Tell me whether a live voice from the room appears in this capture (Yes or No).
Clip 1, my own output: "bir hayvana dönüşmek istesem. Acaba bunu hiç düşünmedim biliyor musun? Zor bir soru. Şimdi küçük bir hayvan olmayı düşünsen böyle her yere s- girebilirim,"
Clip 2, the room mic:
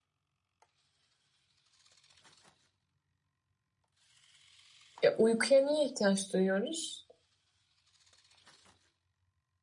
Yes